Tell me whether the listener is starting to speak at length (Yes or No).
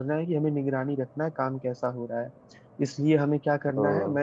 No